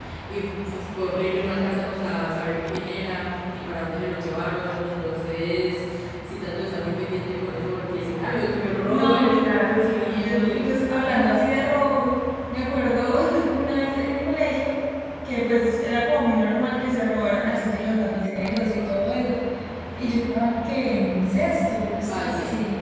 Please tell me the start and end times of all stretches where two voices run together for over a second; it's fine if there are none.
8.8-10.7

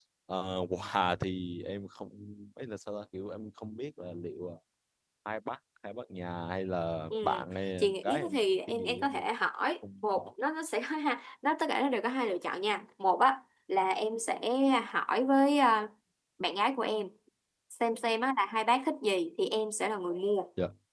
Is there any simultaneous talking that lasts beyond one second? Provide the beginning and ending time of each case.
7.8-9.2

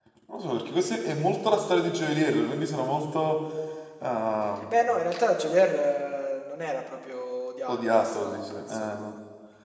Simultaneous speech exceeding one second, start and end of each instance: 7.7-9.1

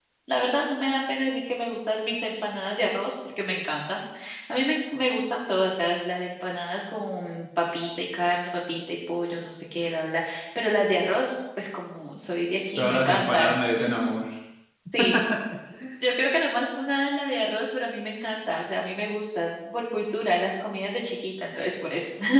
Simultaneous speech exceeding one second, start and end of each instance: 12.8-14.2

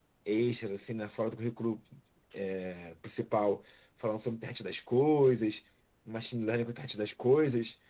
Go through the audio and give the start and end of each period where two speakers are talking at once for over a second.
none

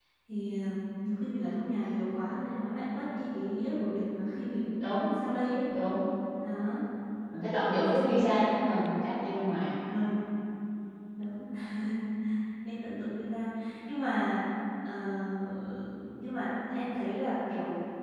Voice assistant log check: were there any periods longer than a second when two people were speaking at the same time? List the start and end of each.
none

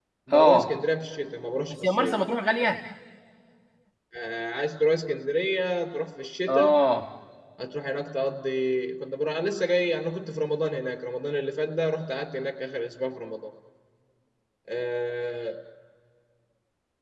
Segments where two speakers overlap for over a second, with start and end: none

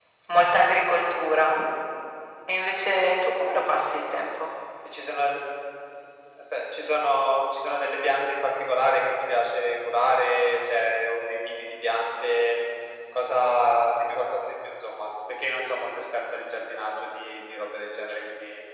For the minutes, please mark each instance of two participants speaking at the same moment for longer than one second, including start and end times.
none

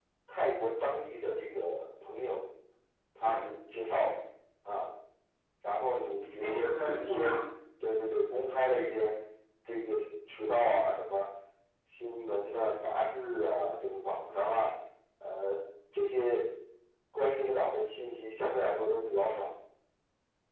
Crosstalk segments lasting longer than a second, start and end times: 5.9-7.3

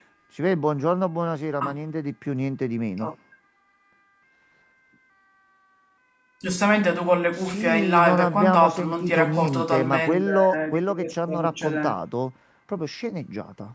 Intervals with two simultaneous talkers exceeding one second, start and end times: 7.4-12.0

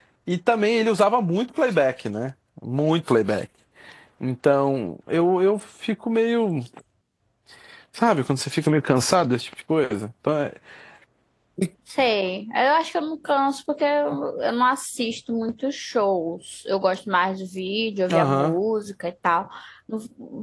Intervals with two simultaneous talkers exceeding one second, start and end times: none

